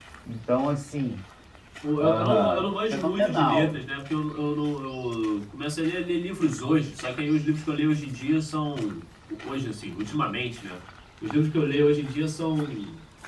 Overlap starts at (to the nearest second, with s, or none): 2 s